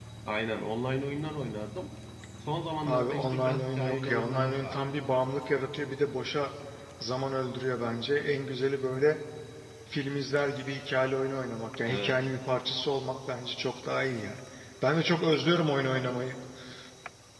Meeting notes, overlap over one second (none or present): present